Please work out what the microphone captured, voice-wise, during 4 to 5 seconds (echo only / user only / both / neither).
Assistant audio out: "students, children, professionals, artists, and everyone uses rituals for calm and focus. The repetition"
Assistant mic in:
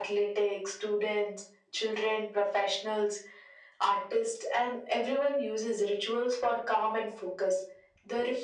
echo only